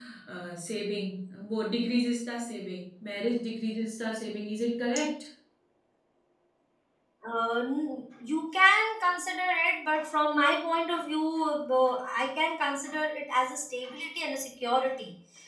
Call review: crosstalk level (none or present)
none